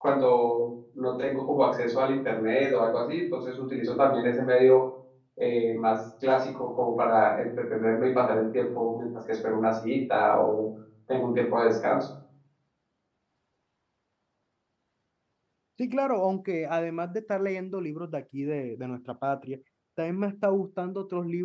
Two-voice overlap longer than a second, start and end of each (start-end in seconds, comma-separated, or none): none